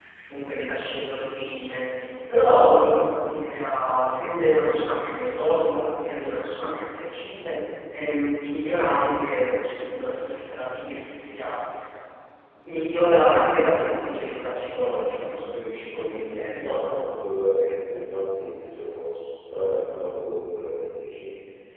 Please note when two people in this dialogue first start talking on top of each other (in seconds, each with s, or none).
none